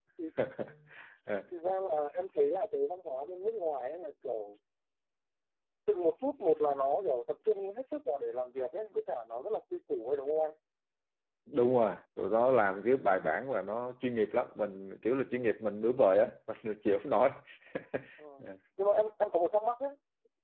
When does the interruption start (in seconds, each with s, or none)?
none